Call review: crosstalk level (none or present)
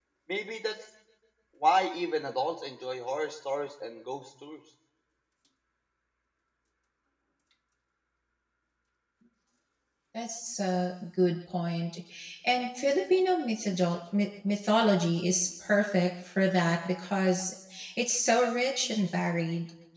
none